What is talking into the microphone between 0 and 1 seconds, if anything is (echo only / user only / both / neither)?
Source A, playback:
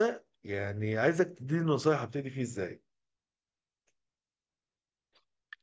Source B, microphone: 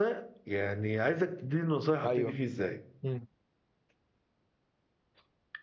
echo only